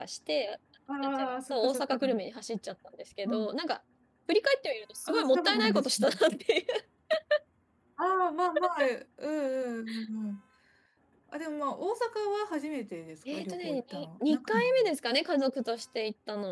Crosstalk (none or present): present